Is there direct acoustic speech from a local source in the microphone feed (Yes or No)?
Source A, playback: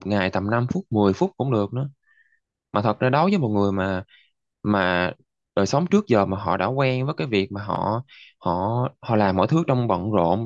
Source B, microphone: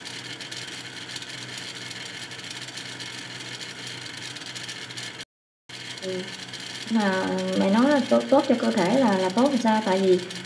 Yes